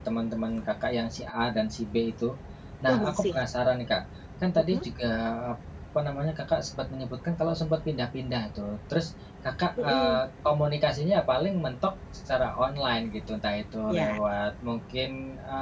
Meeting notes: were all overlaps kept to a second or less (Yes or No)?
Yes